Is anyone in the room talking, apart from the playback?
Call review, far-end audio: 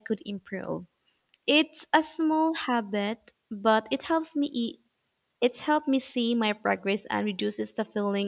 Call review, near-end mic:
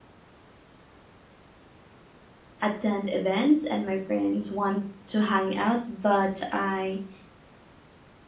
Yes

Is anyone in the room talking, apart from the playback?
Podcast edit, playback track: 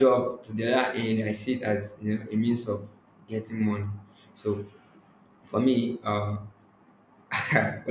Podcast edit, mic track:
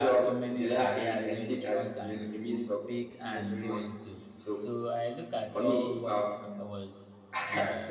Yes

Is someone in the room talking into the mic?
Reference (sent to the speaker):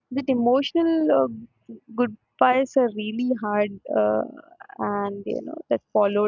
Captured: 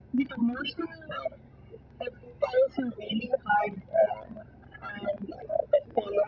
No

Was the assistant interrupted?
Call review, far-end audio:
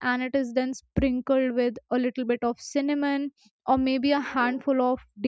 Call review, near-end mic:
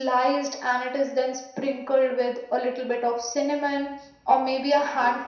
No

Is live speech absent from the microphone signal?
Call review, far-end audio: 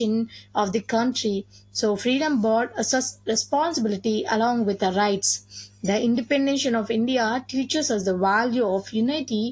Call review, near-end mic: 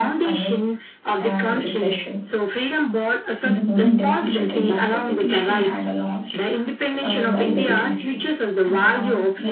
No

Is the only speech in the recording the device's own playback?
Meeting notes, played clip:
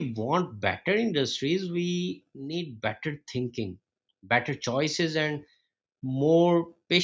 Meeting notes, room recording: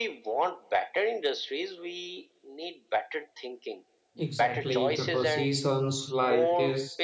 No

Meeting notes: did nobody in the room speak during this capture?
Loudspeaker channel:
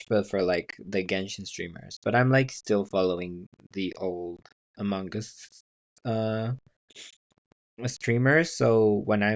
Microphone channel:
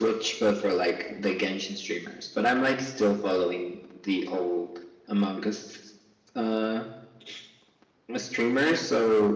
Yes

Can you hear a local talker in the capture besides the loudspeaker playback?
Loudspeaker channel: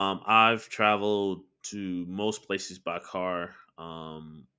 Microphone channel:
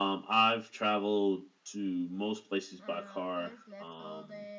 Yes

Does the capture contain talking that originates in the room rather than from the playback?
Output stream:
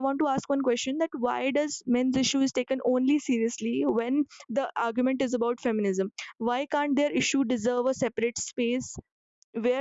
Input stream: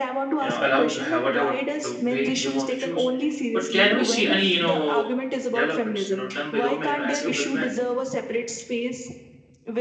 Yes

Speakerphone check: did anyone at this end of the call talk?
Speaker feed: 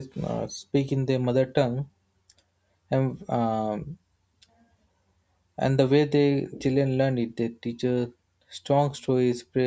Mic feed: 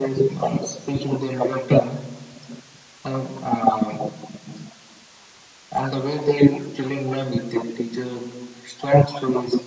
No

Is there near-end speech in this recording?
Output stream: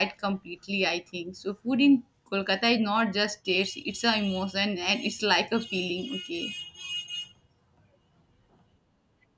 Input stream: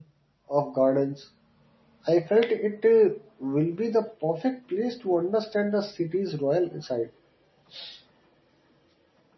Yes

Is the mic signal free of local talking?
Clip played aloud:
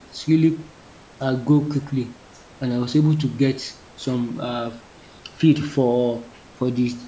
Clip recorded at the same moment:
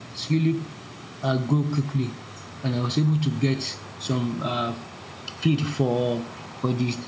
Yes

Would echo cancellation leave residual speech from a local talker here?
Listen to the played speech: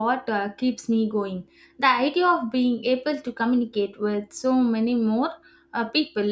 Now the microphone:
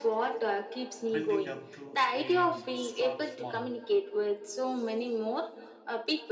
Yes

